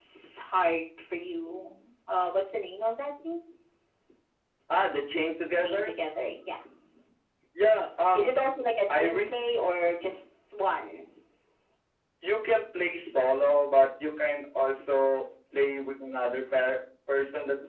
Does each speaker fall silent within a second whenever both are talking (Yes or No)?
Yes